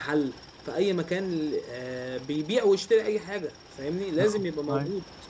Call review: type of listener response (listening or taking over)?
listening